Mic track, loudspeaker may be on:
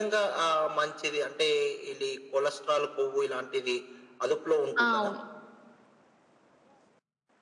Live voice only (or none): ఆ! అవును.